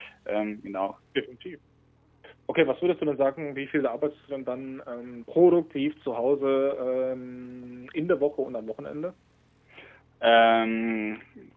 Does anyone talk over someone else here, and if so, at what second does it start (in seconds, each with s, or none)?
none